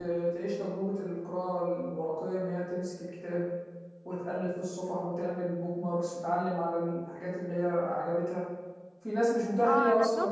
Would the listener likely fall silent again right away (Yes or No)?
No